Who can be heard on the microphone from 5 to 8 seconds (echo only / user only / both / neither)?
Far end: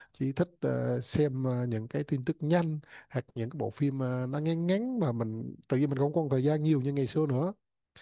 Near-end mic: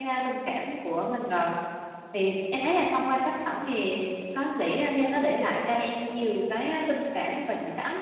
user only